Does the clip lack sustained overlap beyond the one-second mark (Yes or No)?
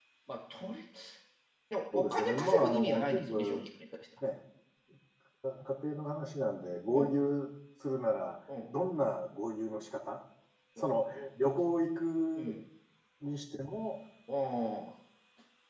No